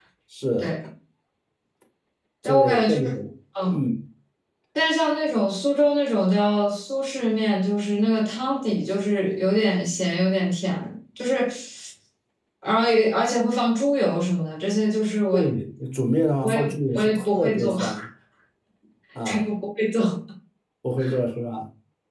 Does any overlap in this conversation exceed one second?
Yes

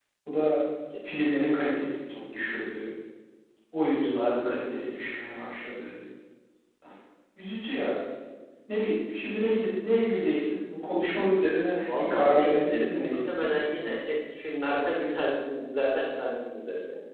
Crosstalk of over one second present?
Yes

